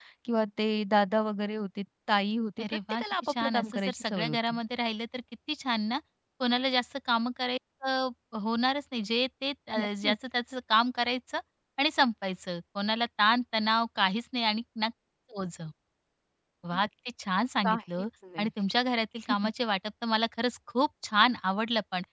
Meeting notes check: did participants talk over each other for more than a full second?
Yes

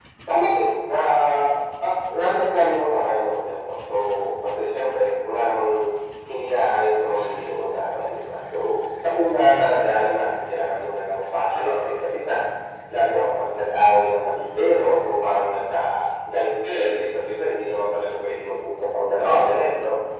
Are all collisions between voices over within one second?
Yes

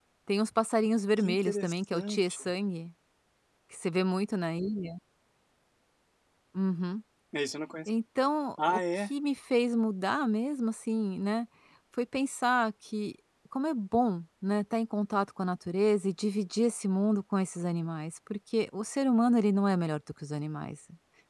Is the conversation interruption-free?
No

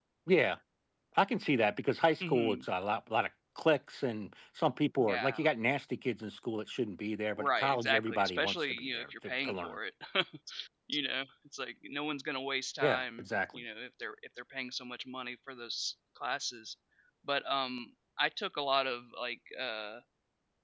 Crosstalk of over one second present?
Yes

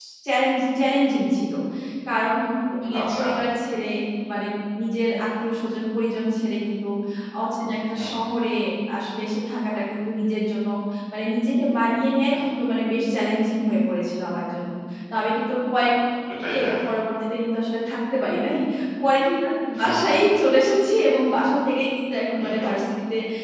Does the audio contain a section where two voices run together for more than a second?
No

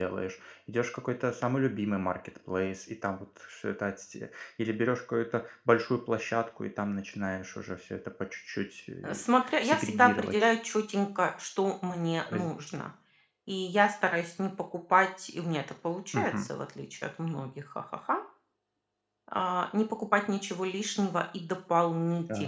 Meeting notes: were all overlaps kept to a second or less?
No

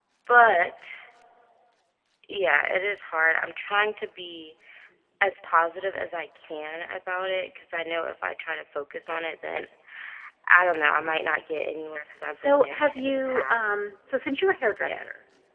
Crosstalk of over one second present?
Yes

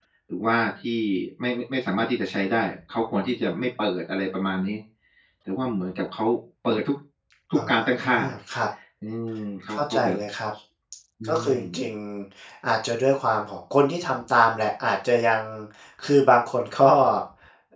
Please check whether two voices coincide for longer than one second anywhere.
No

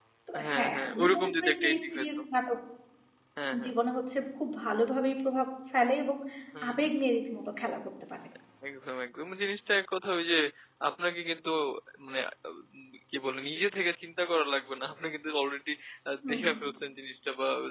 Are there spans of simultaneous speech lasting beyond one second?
Yes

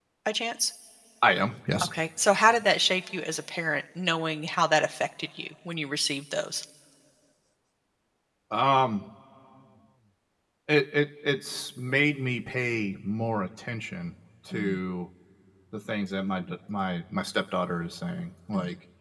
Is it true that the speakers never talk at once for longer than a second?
Yes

